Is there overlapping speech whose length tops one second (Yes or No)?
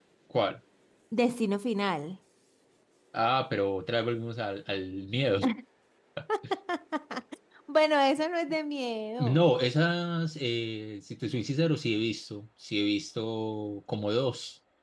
No